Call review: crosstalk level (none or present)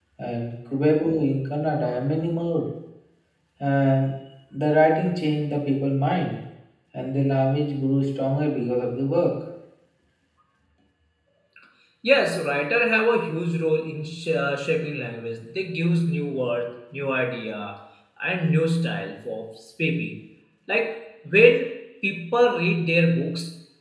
none